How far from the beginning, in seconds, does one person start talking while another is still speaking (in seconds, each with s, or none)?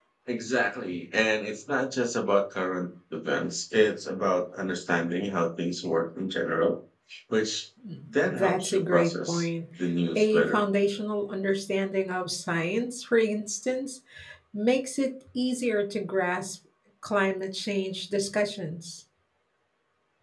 8.2 s